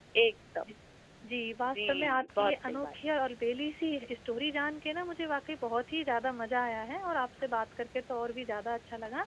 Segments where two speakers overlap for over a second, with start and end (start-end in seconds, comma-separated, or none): 1.7-2.9